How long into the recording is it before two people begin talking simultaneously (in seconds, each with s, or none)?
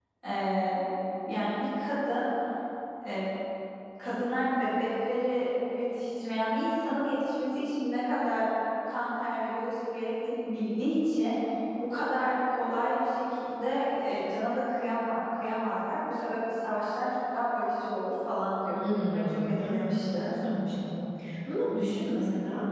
18.7 s